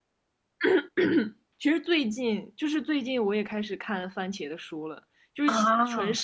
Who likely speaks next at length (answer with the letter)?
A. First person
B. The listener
A